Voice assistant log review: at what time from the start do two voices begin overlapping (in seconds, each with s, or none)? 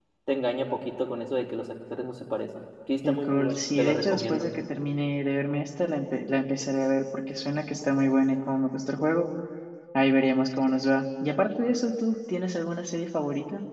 3.0 s